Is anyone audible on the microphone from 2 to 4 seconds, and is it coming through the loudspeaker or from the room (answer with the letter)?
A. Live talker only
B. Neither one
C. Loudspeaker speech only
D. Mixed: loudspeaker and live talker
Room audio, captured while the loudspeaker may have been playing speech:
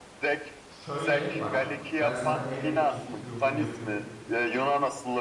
D